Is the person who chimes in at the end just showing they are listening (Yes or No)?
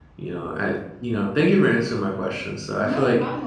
Yes